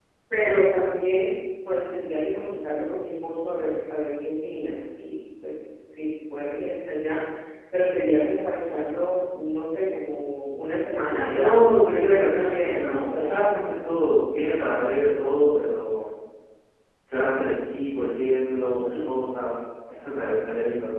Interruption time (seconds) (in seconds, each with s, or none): 11.2 s